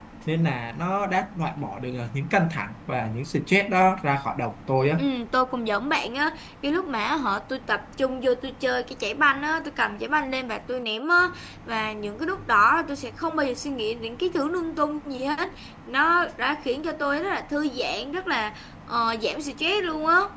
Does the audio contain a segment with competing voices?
No

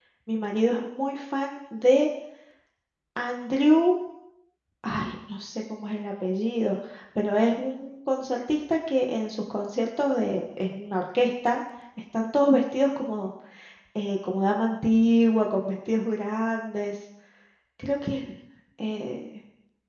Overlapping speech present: No

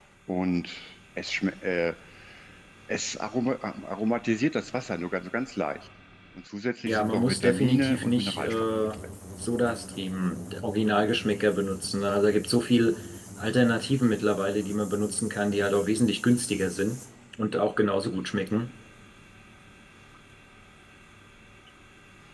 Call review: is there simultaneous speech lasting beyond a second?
Yes, from 6.8 s

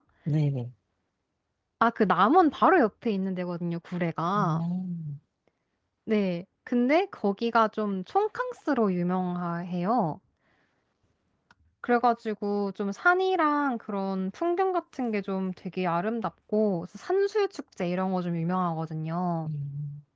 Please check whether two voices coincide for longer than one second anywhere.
No

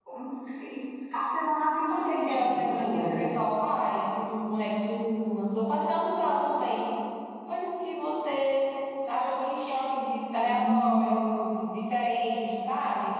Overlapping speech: Yes, from 1.9 s

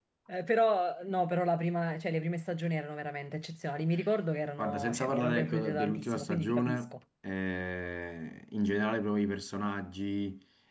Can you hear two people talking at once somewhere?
Yes, from 4.6 s

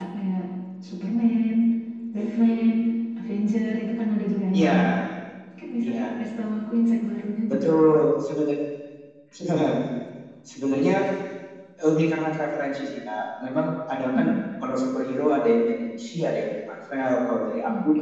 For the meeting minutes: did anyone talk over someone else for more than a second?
No

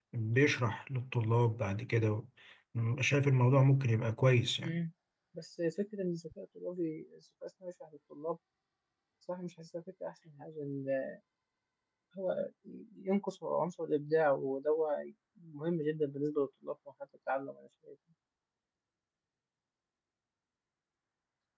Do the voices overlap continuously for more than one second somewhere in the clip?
No

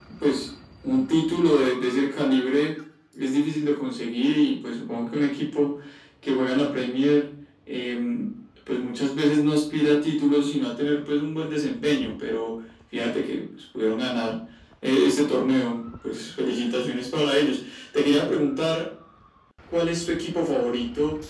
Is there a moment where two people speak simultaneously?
No

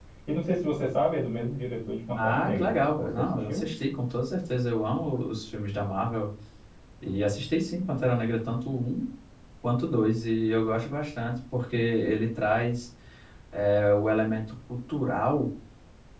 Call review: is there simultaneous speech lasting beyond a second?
Yes, from 2.1 s

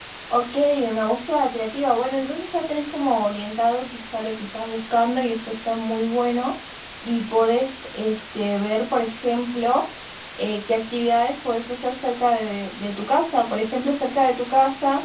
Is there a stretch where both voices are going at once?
No

